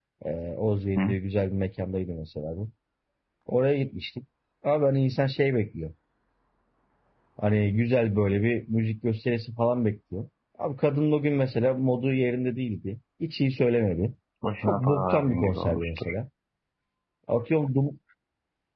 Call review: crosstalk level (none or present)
present